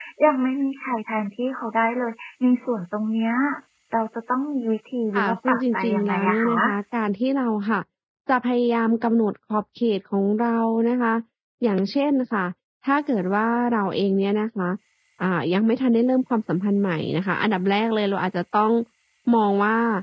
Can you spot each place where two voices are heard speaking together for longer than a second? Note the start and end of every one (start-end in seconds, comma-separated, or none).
5.2-6.5